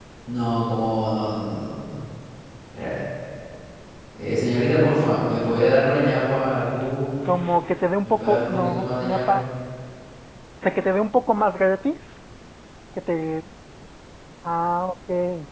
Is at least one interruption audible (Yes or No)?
Yes